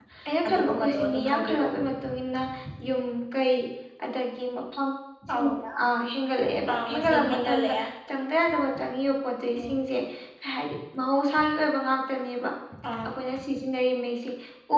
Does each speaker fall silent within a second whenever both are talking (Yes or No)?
No